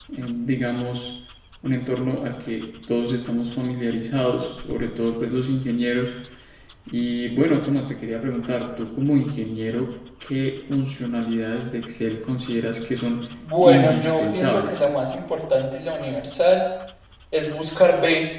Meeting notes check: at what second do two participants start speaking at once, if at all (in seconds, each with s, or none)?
13.4 s